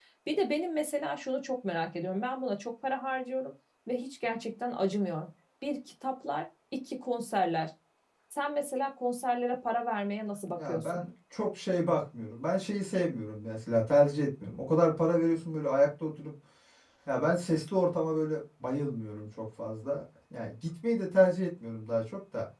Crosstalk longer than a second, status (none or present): none